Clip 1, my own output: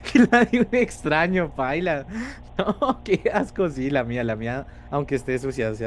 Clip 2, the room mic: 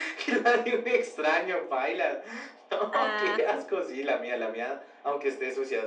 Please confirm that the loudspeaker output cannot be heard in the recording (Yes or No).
No